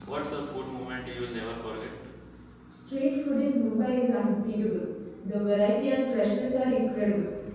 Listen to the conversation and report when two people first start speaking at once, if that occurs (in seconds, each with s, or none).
none